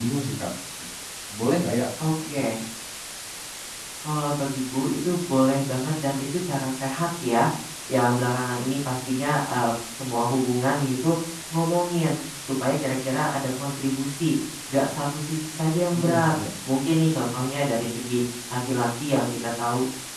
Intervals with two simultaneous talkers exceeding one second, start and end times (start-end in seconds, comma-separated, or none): none